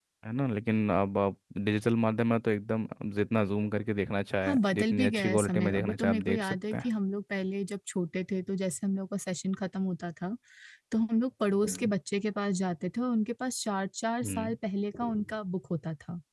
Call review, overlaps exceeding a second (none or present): present